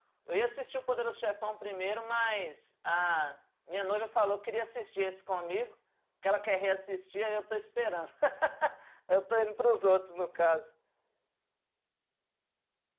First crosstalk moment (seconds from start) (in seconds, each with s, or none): none